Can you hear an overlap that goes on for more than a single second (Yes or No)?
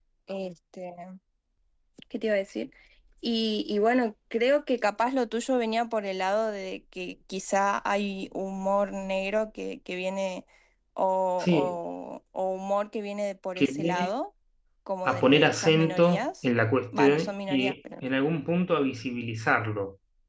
Yes